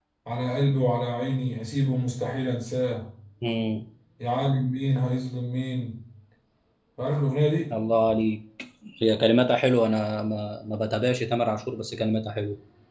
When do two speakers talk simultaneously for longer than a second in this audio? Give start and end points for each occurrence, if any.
none

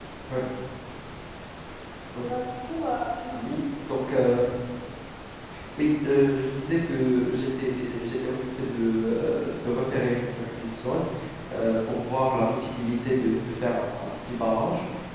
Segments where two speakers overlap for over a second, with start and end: none

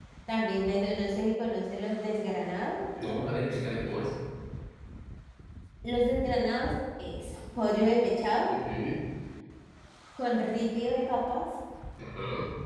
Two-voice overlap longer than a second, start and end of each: none

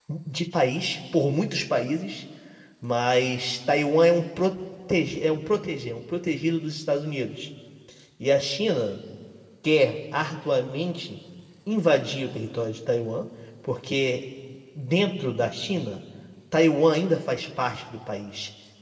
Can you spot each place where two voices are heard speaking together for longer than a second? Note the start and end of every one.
none

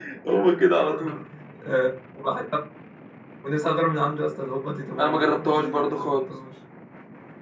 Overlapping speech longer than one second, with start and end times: 5.0-6.2

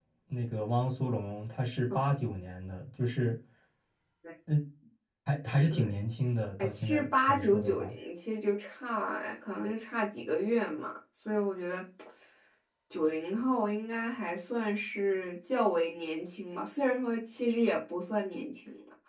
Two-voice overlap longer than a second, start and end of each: 6.6-8.0

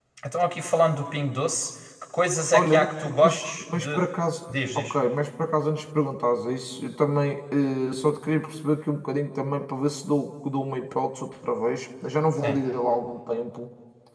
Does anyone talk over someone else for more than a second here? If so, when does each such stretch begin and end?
2.5-4.0

